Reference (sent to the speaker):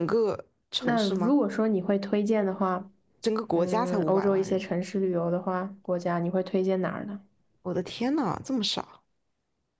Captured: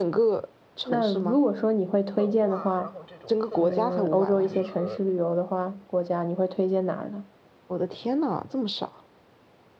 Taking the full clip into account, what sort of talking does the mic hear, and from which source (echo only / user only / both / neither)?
both